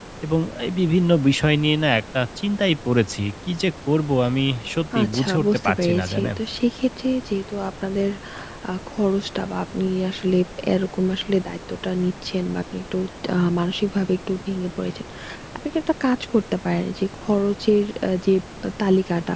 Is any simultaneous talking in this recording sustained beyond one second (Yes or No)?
Yes